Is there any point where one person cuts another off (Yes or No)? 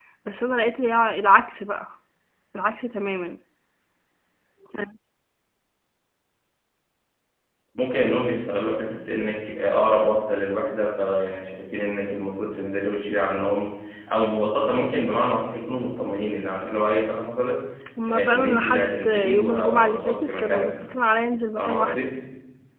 Yes